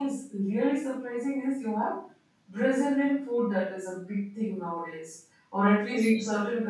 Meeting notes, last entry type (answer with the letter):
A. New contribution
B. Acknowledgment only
B